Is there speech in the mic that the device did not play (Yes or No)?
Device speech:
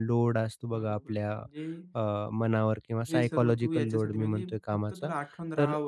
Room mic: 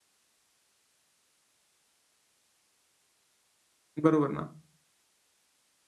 Yes